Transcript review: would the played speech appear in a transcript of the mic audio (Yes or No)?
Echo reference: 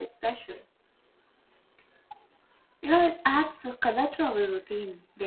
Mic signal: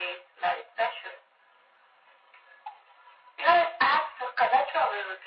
Yes